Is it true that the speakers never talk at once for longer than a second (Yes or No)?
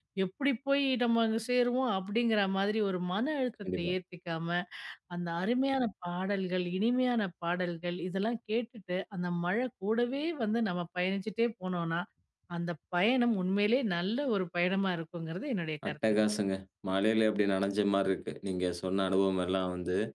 Yes